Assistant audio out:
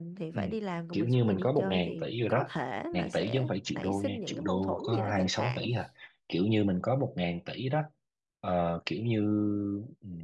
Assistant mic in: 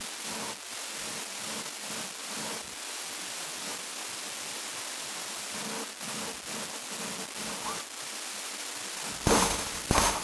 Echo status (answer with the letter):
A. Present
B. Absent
B